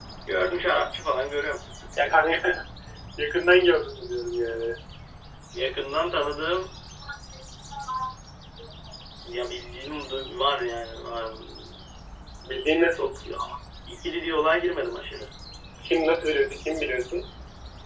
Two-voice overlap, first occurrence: none

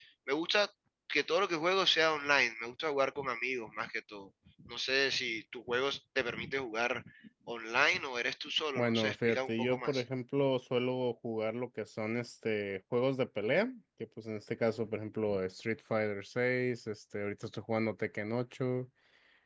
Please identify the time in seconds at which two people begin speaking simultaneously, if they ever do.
8.8 s

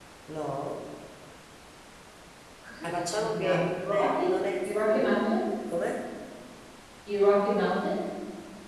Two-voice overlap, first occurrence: 2.8 s

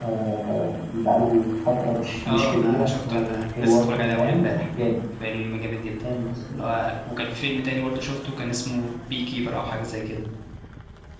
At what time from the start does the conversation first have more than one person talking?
2.2 s

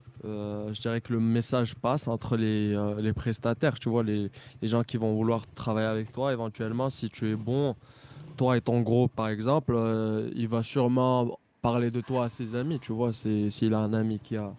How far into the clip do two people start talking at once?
none

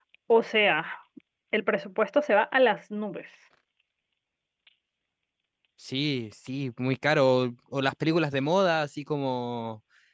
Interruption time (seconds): none

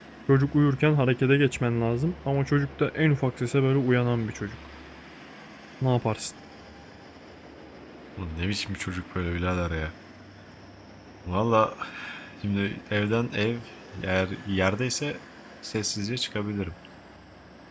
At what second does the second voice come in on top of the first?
none

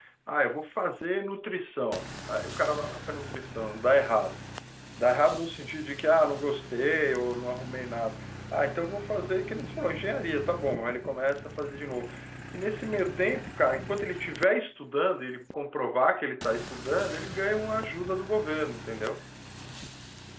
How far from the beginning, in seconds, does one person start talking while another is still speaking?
none

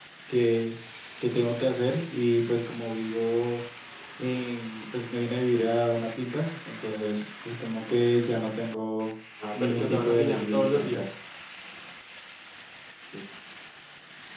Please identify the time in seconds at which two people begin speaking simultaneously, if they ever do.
9.4 s

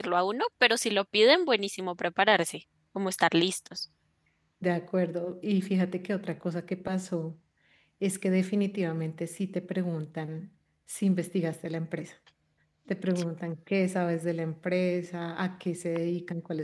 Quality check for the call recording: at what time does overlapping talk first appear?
none

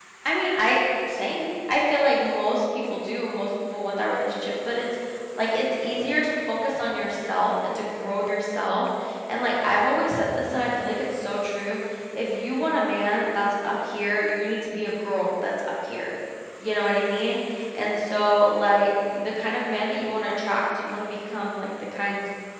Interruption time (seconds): none

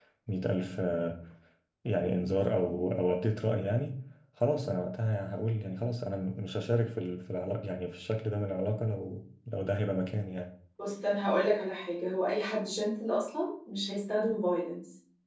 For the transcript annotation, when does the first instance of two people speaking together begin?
none

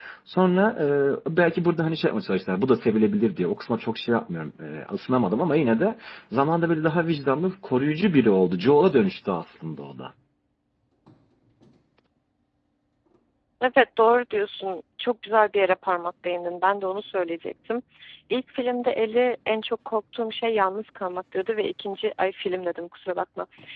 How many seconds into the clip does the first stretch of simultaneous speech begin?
none

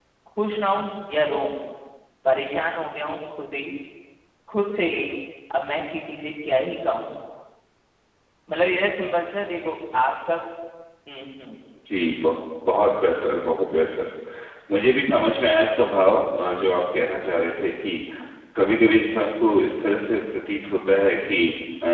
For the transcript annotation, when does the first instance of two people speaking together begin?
none

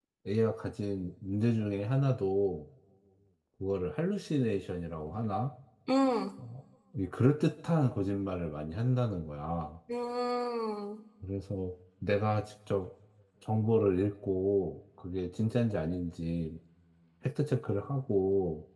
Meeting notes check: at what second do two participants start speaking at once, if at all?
none

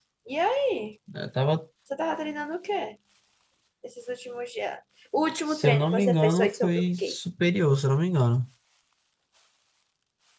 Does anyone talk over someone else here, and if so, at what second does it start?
5.5 s

